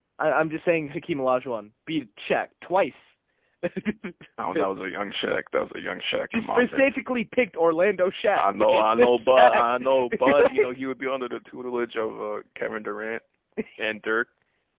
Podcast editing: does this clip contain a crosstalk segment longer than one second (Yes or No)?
Yes